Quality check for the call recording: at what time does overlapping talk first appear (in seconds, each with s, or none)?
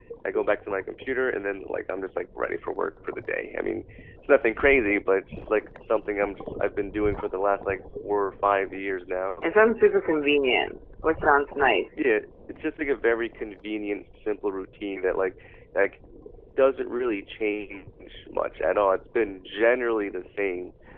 none